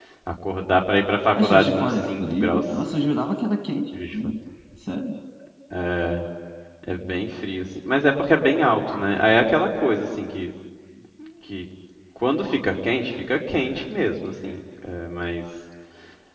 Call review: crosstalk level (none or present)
present